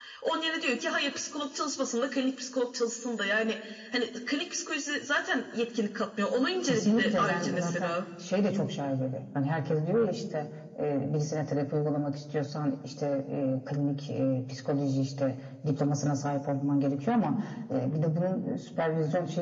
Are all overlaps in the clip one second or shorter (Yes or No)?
No